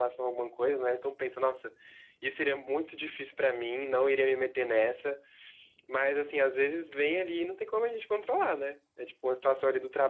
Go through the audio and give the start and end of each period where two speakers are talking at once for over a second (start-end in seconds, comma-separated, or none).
none